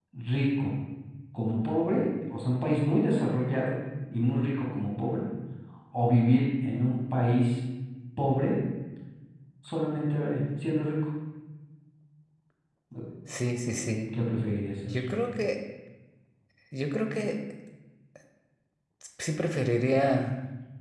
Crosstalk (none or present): none